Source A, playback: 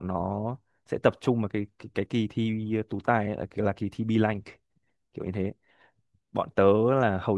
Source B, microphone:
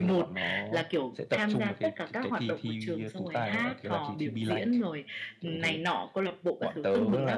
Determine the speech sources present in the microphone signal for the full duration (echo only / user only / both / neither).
both